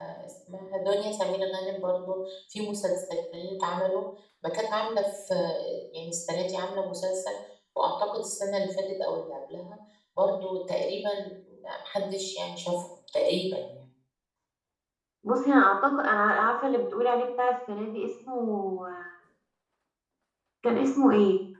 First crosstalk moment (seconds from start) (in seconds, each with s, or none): none